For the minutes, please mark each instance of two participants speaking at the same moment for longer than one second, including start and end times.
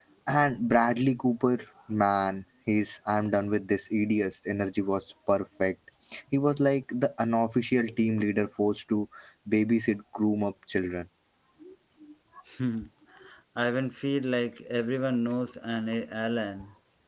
none

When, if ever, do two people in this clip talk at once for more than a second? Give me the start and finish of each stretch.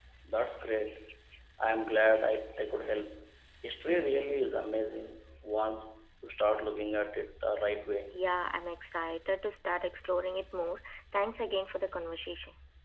none

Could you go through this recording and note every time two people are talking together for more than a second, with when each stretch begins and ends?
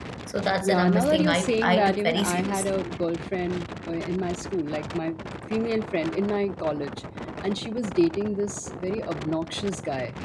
0.6-2.8

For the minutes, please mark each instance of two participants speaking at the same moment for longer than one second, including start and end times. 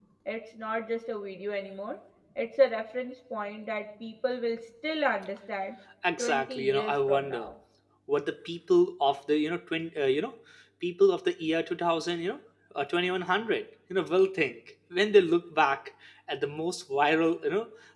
6.2-7.5

